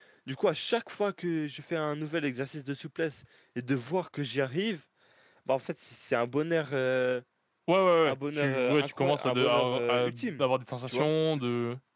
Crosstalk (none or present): present